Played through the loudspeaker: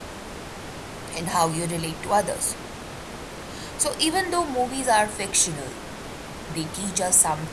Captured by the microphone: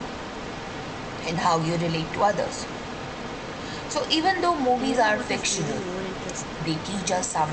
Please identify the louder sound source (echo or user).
echo